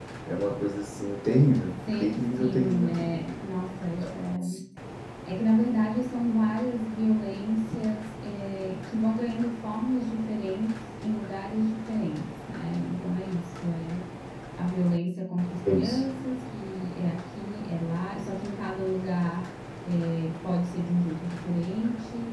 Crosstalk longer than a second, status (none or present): present